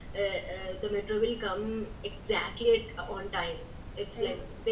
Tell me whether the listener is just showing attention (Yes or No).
Yes